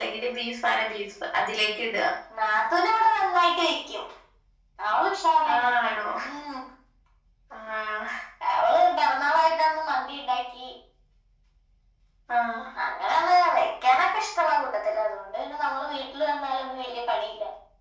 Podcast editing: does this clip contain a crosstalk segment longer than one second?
No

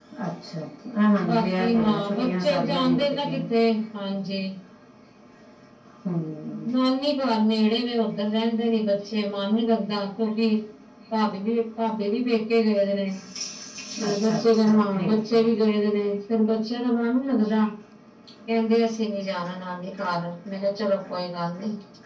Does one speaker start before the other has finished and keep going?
Yes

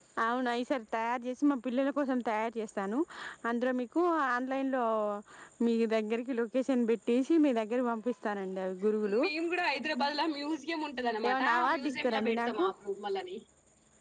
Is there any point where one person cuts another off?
Yes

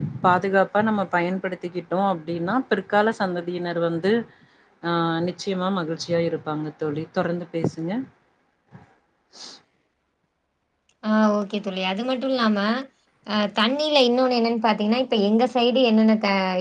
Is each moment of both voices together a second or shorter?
Yes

